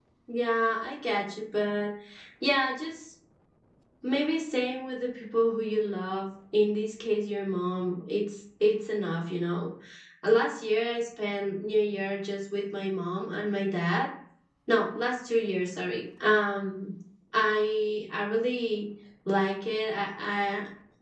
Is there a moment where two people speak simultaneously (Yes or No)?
No